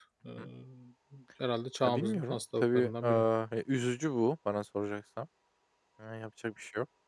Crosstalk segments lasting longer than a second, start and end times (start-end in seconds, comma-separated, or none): 1.8-3.2